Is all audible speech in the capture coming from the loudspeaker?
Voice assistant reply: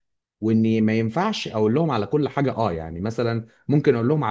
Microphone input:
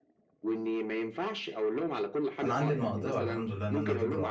No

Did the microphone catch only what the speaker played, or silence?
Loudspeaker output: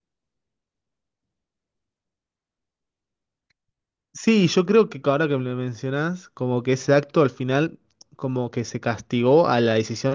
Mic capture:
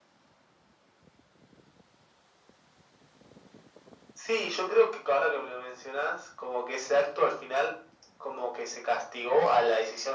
Yes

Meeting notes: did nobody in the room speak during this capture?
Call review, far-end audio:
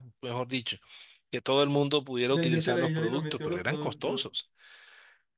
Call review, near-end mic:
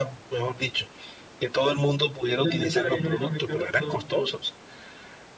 Yes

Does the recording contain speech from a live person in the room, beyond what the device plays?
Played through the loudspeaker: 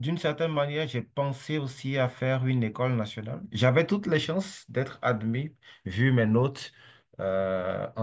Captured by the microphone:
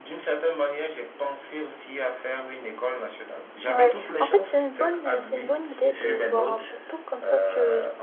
Yes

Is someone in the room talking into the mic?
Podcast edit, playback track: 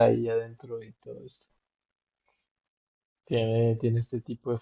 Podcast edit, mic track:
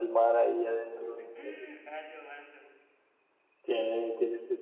Yes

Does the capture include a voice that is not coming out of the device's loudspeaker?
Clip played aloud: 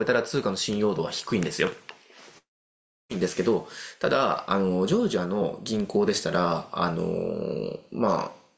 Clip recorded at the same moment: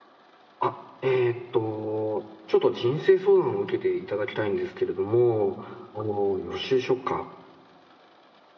Yes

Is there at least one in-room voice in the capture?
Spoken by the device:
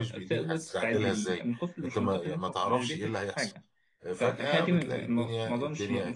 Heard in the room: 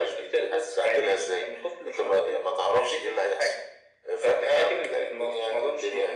No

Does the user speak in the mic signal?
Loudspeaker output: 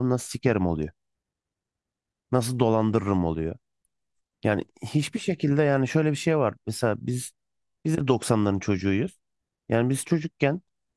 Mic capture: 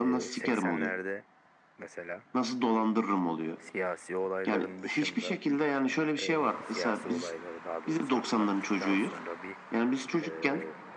Yes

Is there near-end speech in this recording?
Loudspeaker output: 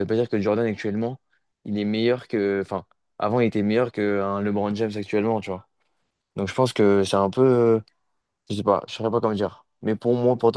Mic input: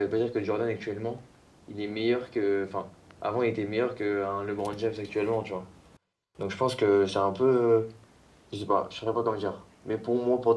No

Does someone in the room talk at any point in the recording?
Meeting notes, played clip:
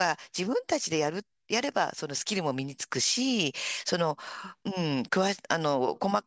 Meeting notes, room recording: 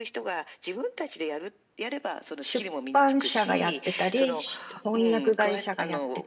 Yes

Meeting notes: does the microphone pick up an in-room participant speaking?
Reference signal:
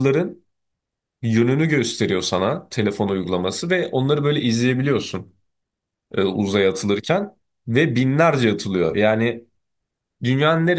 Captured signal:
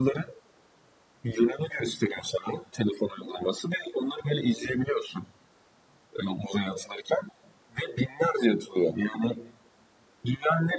No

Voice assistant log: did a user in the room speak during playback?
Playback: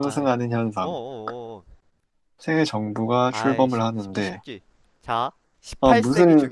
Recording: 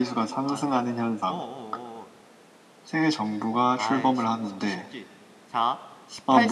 No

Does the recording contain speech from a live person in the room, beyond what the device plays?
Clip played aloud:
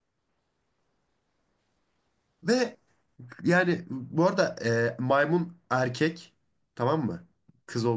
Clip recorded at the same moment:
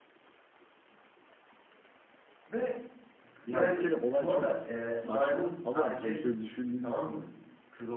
Yes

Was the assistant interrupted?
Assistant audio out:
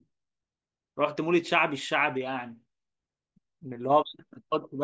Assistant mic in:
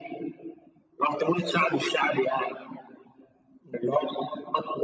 No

